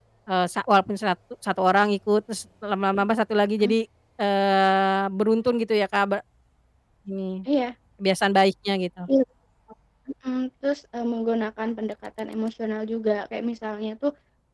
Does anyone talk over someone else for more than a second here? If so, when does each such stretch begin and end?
none

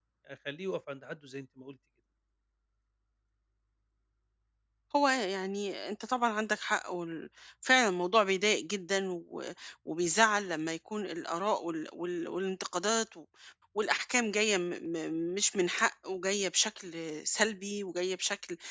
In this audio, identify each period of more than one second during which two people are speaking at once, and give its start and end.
none

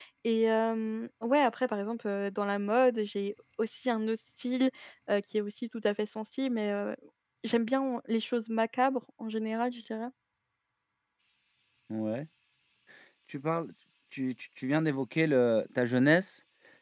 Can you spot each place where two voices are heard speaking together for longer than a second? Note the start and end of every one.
none

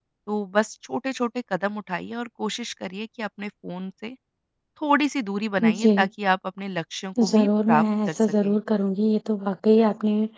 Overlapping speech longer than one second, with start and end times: 7.2-8.5

